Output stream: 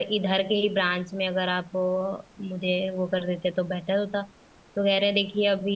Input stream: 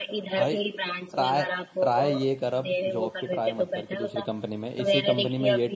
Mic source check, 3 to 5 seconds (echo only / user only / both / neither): both